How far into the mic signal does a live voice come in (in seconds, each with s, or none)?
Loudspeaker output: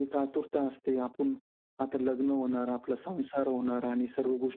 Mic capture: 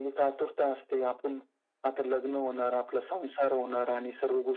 none